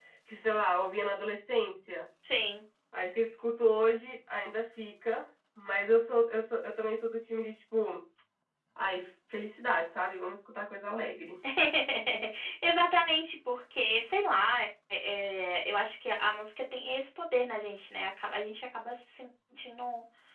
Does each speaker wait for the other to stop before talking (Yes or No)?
Yes